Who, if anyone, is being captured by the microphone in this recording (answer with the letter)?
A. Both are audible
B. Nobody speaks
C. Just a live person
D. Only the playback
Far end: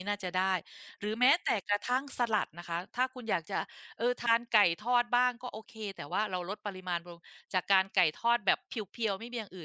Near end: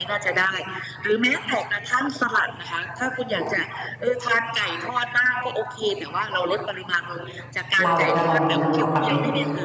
A